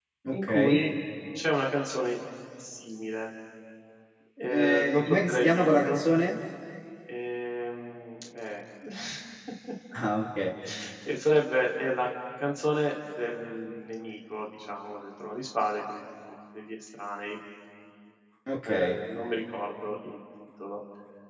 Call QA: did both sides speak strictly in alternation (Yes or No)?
No